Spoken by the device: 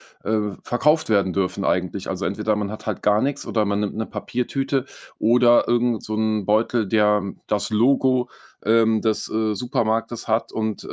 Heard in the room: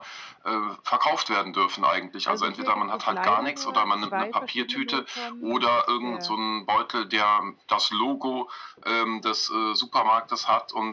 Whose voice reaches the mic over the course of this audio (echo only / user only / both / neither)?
both